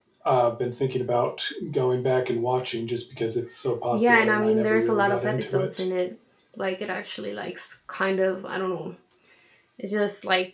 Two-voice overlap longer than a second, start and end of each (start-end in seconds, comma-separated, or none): 3.9-5.7